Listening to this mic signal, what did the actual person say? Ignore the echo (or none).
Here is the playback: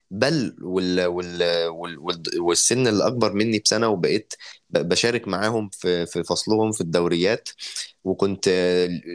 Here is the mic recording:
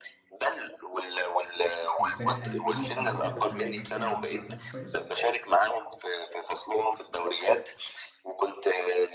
الفرق قال ايه حضرتك عشان بس ما سمعتكش كويس